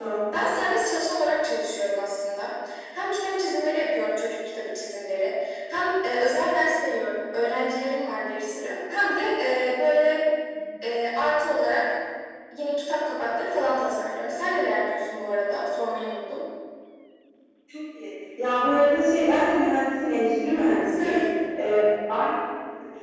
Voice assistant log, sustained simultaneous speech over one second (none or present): none